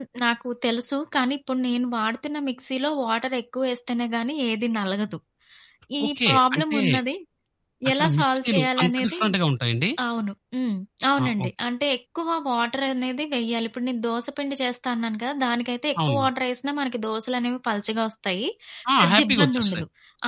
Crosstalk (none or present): present